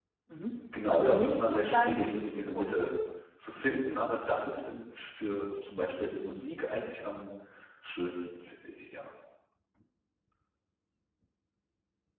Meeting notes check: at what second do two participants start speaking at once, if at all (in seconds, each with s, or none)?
0.9 s